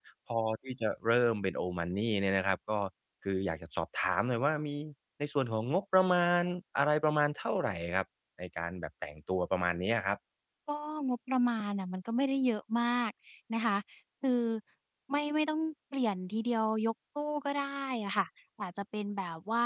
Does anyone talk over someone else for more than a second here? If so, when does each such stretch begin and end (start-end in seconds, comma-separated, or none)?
none